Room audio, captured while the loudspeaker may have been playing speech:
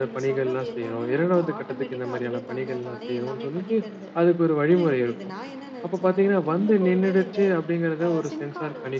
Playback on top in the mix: Yes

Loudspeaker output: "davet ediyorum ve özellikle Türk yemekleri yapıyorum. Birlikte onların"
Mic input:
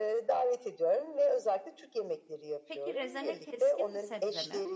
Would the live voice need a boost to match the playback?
Yes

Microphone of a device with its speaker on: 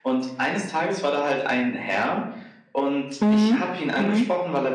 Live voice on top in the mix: Yes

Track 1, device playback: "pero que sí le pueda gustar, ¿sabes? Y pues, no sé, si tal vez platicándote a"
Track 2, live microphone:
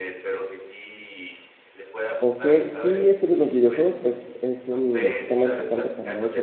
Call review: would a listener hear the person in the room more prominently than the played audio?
Yes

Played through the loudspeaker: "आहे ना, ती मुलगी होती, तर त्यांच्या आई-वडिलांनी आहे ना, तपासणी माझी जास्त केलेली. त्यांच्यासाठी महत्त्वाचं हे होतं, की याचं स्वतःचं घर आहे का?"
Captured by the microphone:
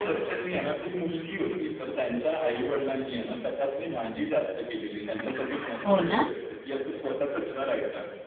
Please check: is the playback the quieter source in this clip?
Yes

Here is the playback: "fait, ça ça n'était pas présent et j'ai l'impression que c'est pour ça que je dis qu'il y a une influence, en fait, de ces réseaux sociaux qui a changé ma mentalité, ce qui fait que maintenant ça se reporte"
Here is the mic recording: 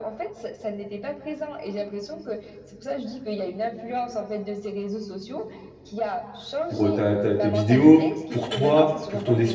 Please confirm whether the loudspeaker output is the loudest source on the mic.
No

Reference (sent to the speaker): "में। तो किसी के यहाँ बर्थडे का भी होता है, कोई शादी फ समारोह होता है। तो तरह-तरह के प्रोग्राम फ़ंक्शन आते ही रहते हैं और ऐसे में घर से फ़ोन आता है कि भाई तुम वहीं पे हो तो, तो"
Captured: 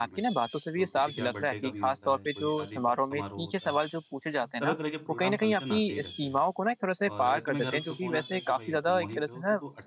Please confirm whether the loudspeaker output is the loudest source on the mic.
No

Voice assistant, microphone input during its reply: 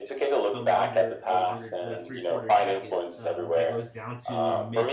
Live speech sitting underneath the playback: Yes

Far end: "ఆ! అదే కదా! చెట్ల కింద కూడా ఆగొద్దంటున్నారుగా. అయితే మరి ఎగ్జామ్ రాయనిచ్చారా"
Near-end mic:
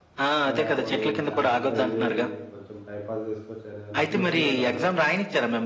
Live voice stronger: No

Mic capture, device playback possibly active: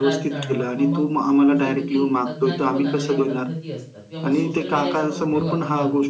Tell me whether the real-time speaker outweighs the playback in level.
No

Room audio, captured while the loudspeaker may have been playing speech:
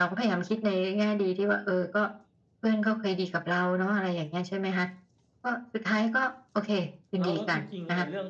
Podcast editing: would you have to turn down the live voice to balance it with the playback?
No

